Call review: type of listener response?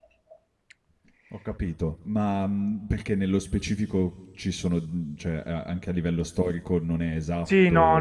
taking over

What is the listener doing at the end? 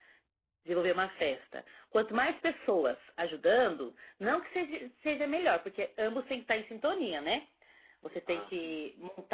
listening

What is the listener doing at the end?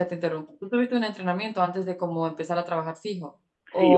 taking over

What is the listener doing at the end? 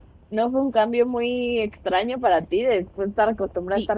taking over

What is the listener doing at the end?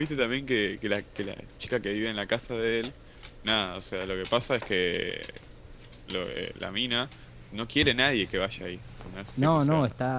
taking over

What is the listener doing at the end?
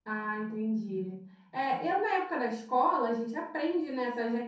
listening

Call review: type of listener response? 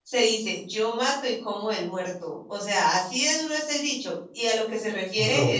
listening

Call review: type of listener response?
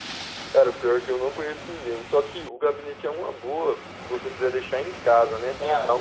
listening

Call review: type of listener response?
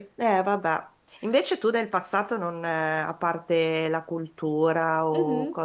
listening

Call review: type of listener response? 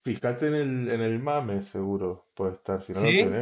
listening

